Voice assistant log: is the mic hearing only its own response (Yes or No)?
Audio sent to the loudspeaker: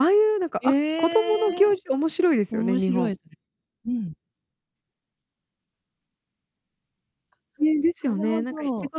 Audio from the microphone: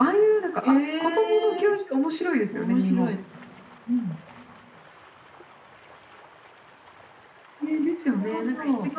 Yes